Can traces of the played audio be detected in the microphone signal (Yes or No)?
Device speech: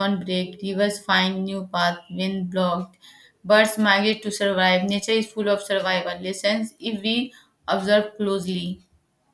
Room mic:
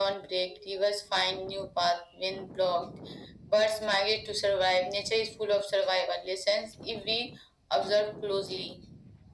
Yes